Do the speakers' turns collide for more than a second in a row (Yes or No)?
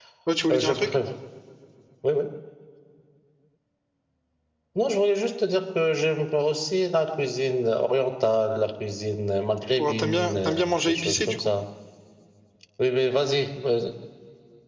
Yes